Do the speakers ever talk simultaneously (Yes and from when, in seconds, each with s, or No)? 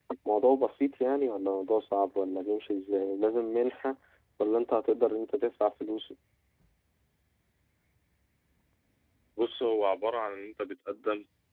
No